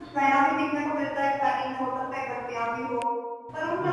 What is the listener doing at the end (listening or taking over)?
listening